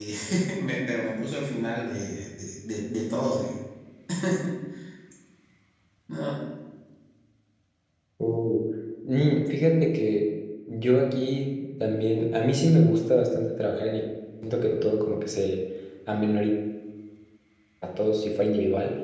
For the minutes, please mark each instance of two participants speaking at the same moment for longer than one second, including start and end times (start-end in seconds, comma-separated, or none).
none